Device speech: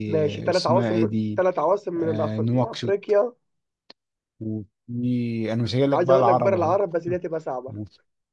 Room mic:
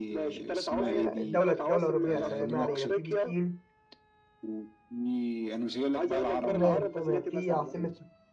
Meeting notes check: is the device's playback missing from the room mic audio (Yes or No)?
No